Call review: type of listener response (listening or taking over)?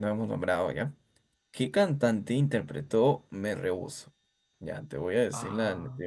listening